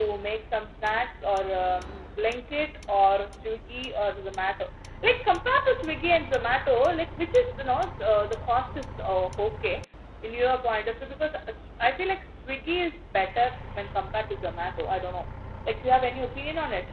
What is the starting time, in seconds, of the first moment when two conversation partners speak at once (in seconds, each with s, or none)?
none